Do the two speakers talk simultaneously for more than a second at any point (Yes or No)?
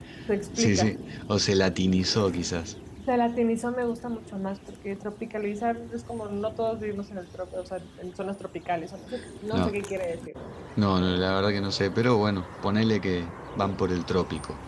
No